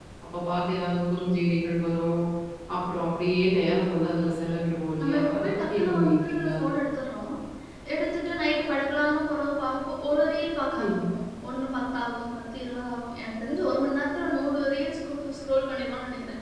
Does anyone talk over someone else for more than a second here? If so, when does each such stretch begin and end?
5.0-6.5

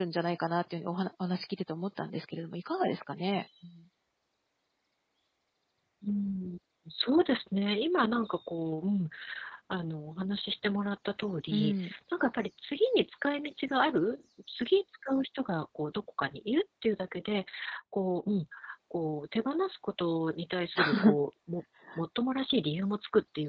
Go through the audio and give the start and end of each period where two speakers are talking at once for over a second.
none

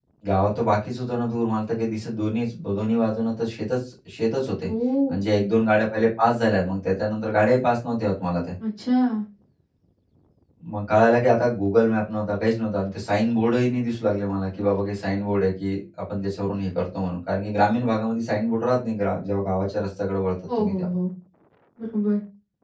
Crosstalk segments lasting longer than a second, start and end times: none

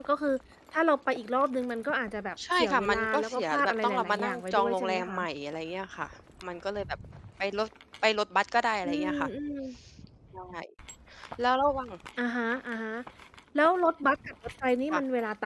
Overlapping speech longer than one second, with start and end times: 2.5-5.2

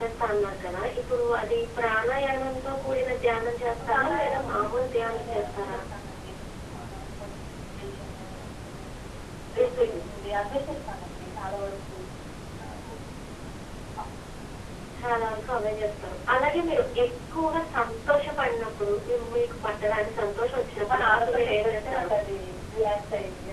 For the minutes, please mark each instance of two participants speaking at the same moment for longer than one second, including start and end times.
3.8-5.8, 20.9-22.1

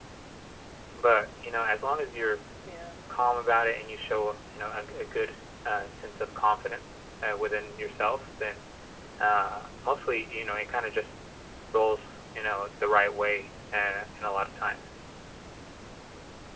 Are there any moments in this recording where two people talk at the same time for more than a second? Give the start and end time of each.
none

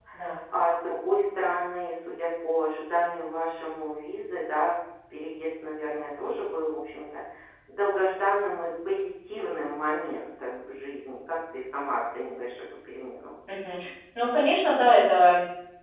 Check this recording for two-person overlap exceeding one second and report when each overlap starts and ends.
none

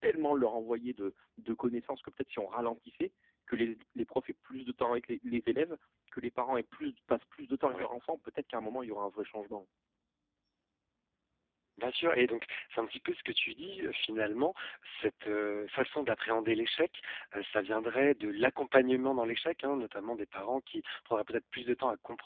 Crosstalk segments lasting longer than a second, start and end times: none

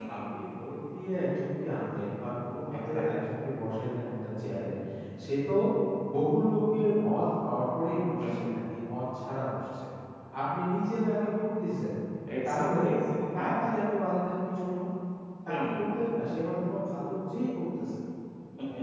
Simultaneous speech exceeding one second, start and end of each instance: none

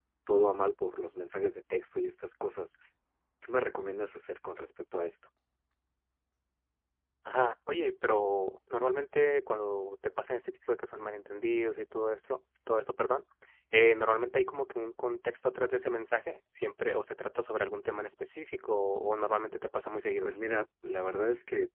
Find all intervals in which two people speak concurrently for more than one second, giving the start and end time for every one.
none

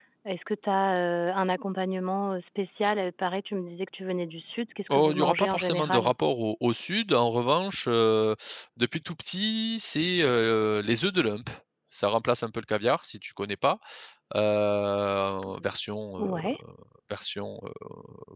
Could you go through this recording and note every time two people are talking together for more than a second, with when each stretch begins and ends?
4.9-6.1

